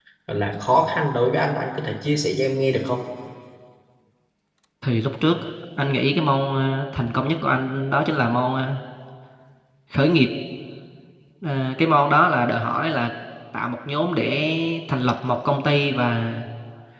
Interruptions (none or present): none